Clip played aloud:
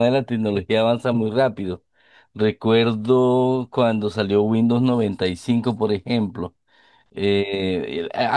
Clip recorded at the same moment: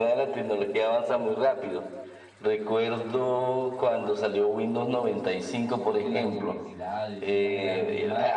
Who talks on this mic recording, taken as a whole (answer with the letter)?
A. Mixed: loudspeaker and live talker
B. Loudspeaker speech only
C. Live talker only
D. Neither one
A